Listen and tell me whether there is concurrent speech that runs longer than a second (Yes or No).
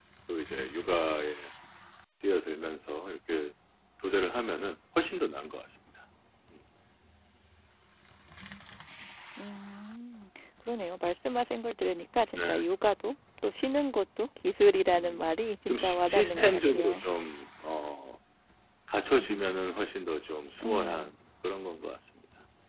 Yes